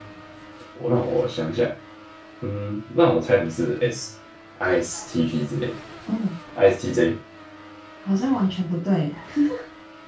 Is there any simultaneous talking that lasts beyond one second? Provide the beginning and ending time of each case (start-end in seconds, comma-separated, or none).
none